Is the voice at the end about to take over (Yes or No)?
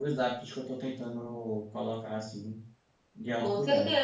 Yes